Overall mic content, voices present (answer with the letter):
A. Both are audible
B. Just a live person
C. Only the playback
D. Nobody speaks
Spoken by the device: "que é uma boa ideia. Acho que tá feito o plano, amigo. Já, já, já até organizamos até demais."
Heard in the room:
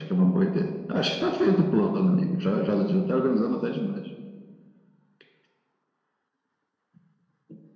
C